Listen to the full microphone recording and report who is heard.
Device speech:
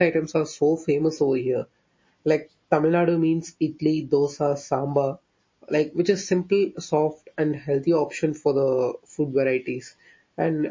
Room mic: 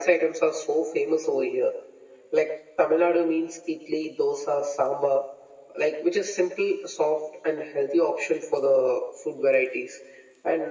echo only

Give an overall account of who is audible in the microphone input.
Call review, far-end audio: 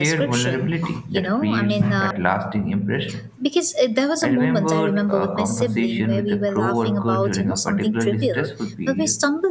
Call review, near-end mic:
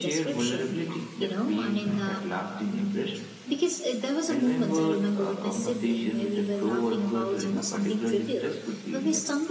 echo only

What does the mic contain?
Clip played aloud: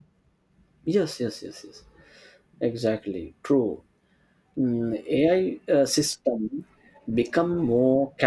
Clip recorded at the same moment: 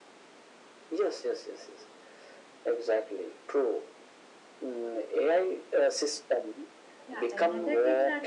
both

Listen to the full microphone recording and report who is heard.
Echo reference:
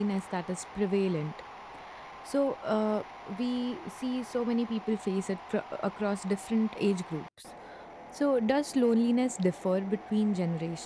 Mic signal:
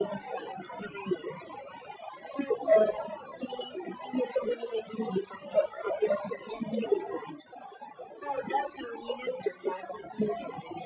echo only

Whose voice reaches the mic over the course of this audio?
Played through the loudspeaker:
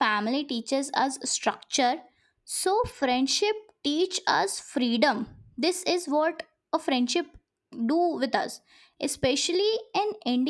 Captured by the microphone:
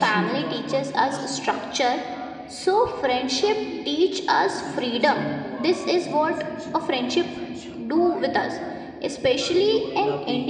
both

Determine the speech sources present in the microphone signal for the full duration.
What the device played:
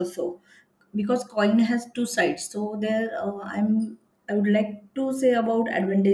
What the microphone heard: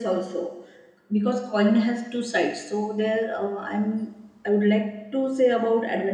echo only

